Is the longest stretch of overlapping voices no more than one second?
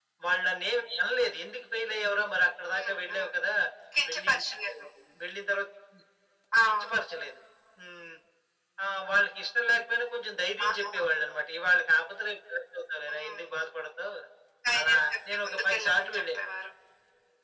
No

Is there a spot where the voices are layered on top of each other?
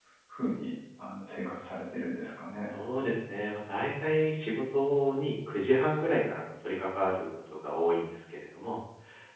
No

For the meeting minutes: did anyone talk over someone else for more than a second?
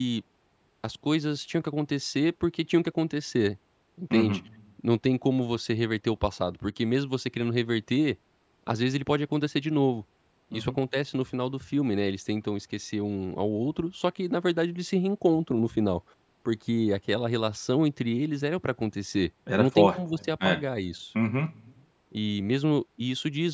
No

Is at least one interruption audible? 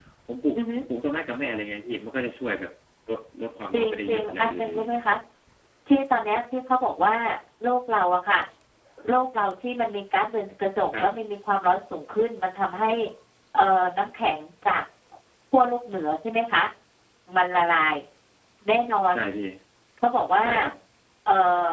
Yes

